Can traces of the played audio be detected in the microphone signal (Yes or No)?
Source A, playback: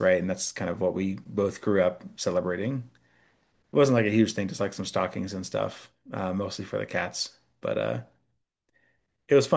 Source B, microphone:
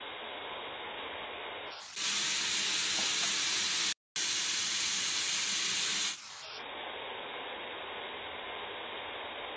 No